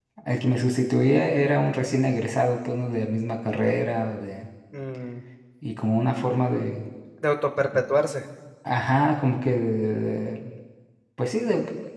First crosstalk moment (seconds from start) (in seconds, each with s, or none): none